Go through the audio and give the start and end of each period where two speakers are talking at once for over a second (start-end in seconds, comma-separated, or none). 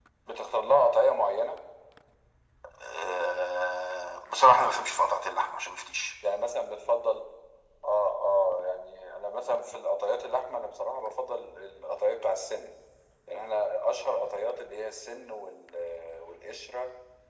none